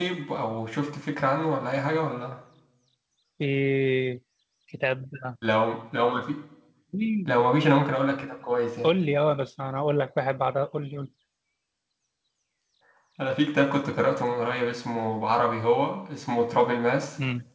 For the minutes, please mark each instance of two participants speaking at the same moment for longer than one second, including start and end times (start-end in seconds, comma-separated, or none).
none